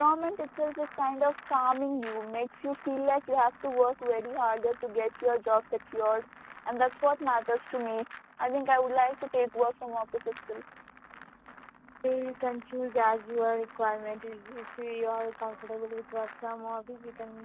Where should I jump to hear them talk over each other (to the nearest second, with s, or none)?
none